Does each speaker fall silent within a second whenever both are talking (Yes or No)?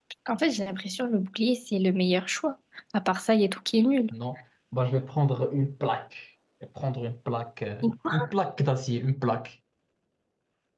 Yes